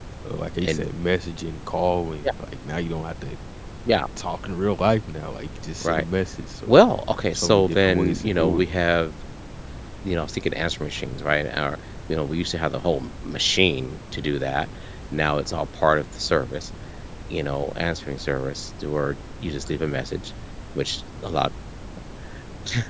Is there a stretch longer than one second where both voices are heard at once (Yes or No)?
Yes